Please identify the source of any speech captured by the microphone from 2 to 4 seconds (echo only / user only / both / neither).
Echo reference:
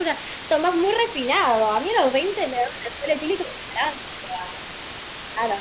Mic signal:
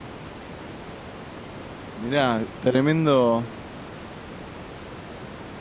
user only